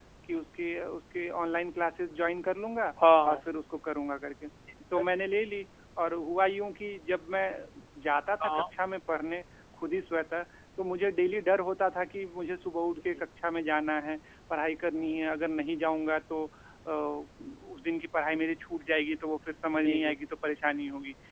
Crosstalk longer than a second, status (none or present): none